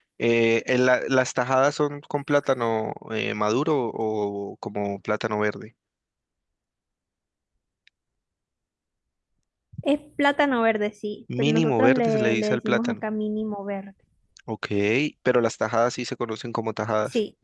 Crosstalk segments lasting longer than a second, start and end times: 11.4-12.9

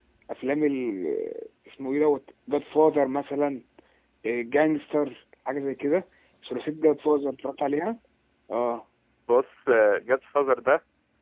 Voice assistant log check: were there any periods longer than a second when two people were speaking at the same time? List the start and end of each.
none

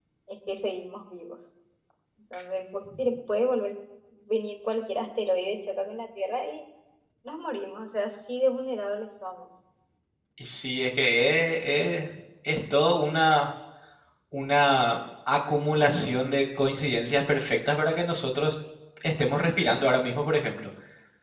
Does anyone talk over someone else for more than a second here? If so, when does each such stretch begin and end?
none

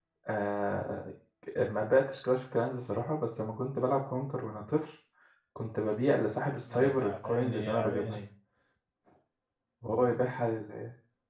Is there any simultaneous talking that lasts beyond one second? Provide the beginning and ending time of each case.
6.7-8.2

